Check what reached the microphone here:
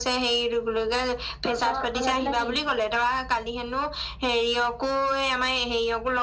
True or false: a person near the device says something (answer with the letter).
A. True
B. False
A